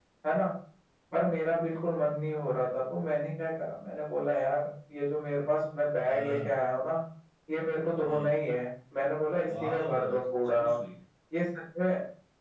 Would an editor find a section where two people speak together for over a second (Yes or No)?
Yes